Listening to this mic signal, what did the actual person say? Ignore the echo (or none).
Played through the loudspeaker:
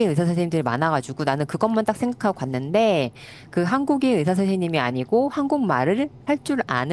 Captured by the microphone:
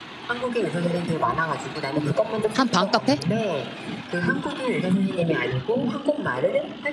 한 반값에?